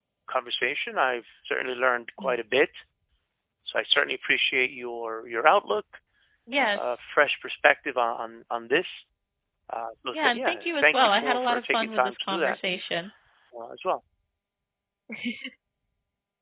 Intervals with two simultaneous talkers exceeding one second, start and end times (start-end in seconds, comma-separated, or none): 10.1-12.6